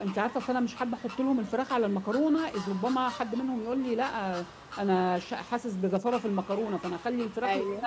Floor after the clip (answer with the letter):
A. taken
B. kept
B